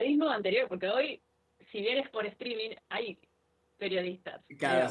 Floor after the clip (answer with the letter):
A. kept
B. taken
B